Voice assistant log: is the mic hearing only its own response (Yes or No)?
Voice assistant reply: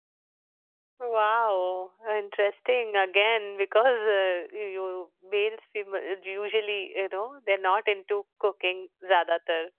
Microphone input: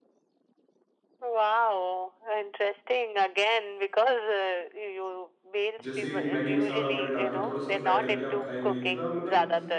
No